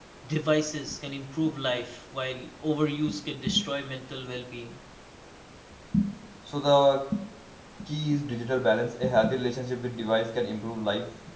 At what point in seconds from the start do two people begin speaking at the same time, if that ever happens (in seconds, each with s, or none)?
none